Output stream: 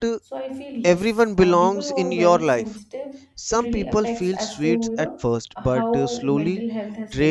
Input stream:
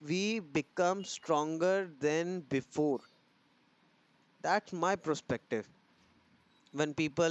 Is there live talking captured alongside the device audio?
Yes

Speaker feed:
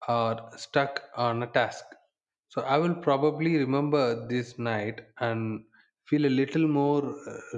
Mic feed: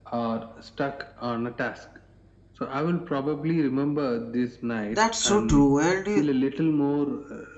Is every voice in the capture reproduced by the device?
No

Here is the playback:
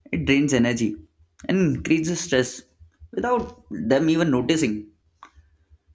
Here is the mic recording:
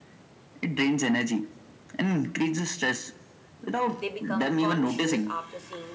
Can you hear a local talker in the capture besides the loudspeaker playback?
Yes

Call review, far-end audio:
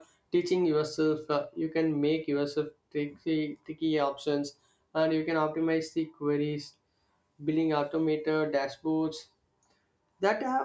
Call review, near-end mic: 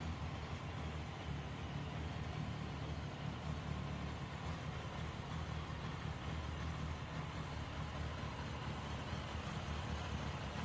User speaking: No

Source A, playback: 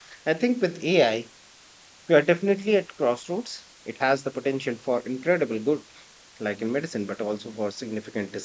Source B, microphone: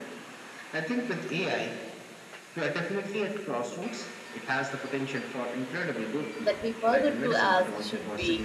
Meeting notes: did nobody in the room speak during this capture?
No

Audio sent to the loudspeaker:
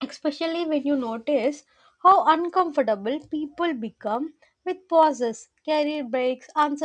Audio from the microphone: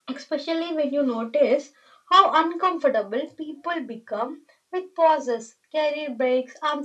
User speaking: No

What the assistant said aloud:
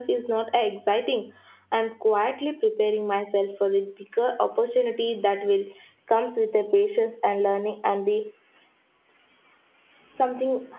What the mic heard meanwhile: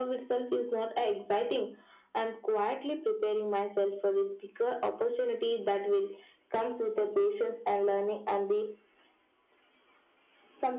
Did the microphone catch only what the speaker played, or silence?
Yes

